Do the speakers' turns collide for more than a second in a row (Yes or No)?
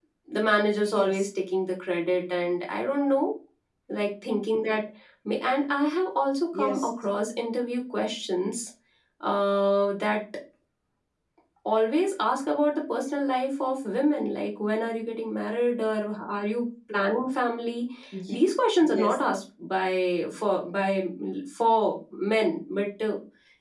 No